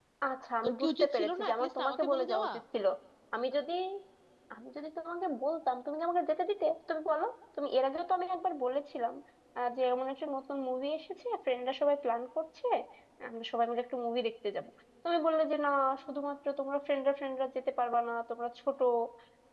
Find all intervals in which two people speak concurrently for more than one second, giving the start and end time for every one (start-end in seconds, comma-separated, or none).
0.6-2.5